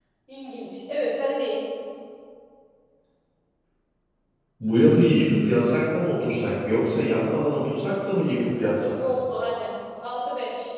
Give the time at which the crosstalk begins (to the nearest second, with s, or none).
none